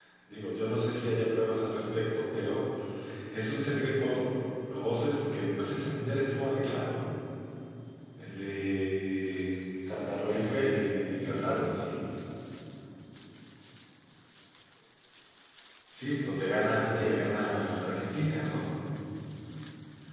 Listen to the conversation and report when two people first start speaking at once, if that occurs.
10.3 s

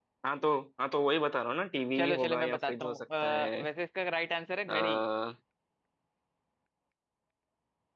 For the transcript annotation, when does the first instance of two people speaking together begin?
2.0 s

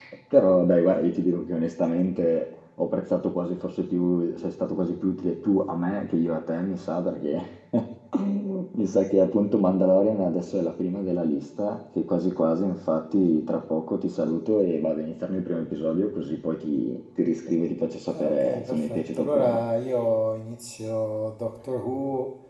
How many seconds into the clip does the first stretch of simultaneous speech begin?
18.1 s

